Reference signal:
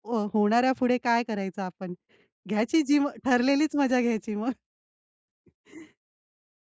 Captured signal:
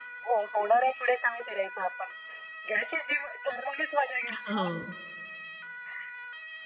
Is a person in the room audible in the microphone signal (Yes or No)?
Yes